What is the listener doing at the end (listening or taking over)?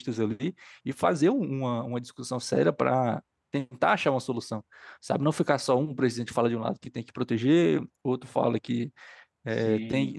listening